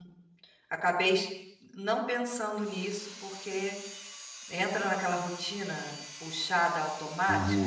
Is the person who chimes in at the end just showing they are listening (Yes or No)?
No